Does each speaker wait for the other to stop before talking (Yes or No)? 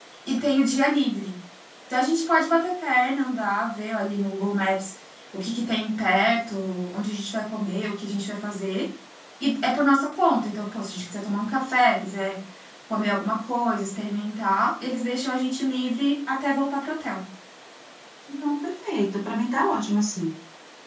Yes